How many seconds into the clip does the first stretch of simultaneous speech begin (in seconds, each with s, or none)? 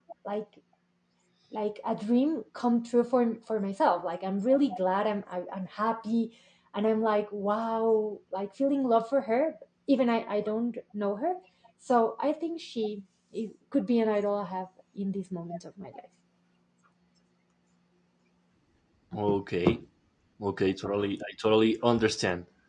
none